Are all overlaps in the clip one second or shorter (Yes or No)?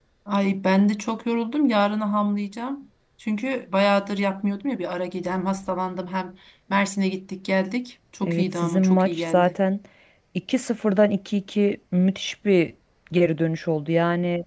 No